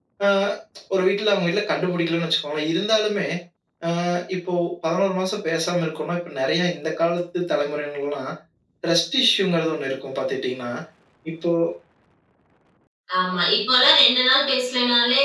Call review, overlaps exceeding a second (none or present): none